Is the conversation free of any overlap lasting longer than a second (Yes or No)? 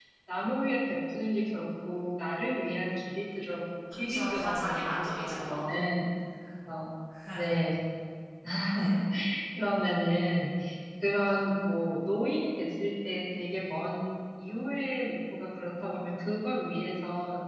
No